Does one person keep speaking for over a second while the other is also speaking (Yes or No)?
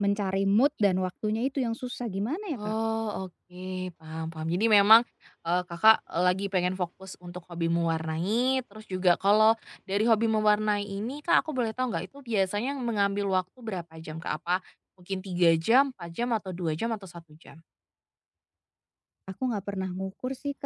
No